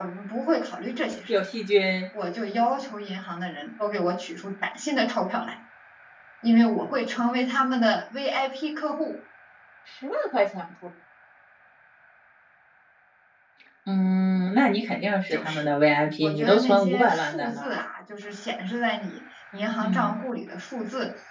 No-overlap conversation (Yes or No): No